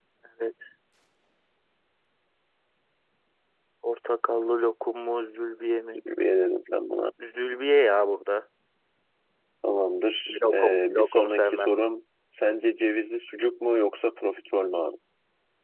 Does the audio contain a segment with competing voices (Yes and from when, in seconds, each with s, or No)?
Yes, from 10.3 s